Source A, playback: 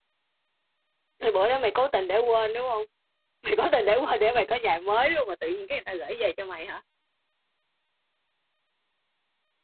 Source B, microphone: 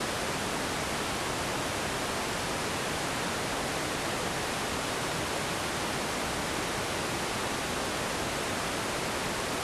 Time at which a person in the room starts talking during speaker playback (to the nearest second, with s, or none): none